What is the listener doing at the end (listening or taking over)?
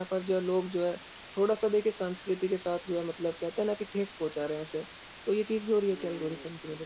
taking over